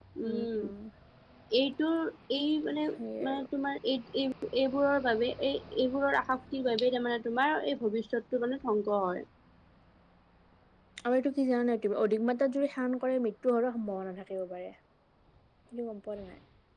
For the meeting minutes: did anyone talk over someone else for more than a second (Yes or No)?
No